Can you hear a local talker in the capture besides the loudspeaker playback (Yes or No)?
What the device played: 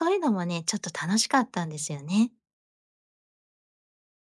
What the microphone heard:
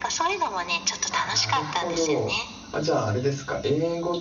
Yes